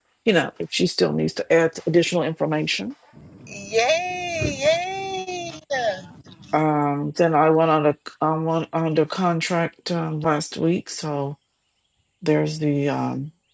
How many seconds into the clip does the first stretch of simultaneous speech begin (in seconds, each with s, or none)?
none